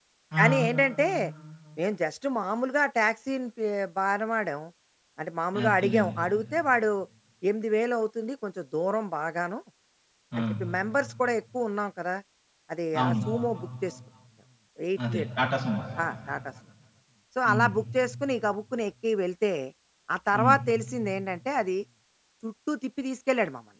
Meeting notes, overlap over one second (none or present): none